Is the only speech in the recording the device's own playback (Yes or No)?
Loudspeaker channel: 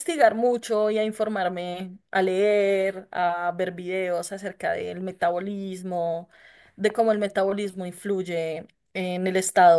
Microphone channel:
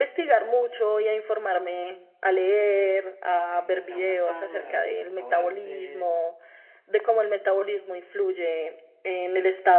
No